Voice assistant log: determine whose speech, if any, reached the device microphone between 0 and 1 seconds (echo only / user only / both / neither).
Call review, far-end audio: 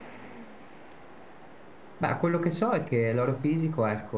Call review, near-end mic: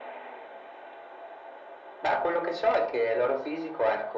neither